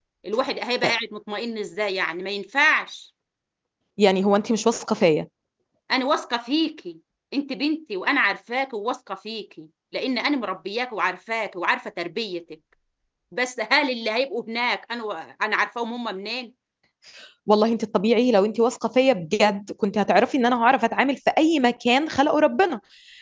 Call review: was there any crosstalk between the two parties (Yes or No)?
No